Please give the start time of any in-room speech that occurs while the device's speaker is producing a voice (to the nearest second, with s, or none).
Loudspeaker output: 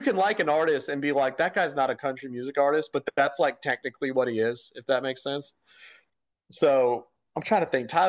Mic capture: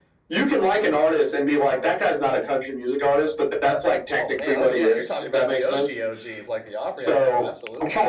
4 s